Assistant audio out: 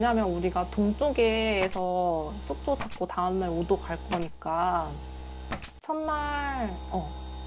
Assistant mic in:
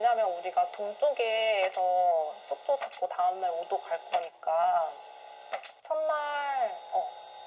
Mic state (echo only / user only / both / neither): echo only